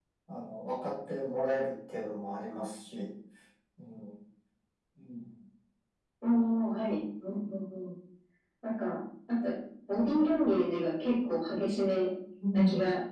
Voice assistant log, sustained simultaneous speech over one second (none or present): none